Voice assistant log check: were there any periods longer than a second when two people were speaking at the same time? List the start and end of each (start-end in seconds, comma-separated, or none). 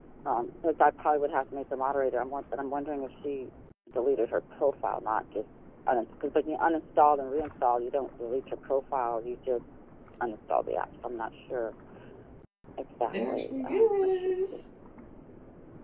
13.1-14.6